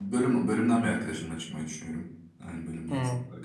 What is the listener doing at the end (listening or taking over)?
taking over